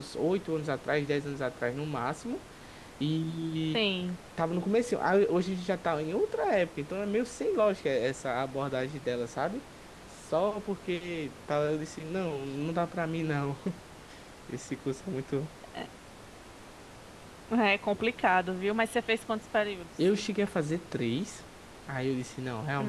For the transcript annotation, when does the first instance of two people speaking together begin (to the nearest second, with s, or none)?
none